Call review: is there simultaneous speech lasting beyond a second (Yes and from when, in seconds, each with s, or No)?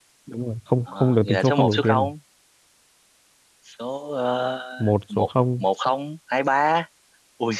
Yes, from 0.9 s